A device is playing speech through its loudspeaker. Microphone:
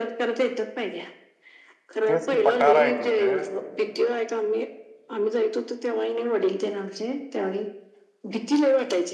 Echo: present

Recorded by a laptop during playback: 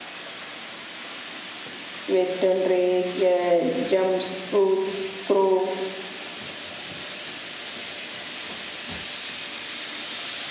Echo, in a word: none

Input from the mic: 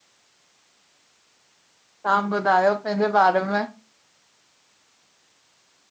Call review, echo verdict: none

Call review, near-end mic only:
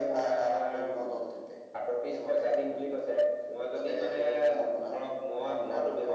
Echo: present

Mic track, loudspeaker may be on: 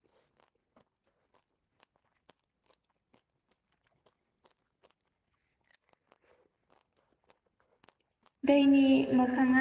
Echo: none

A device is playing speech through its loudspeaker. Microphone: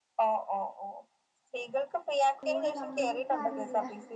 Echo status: present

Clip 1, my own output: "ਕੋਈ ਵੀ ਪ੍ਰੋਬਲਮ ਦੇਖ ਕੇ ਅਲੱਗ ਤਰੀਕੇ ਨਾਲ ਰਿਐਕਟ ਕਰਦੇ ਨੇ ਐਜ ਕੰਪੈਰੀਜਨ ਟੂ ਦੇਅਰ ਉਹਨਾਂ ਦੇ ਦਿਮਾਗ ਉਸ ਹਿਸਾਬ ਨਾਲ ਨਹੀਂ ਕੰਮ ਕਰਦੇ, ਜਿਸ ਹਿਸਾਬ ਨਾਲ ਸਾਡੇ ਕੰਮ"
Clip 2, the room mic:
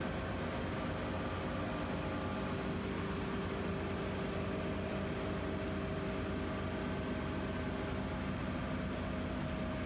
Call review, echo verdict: none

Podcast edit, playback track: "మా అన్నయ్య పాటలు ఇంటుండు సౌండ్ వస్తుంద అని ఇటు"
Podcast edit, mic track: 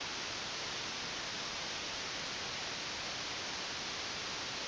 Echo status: none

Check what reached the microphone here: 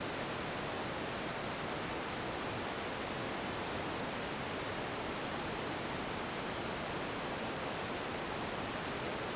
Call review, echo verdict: none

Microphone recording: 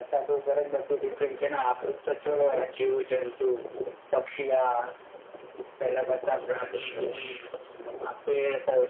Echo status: present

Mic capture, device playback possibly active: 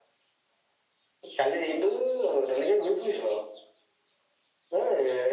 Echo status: present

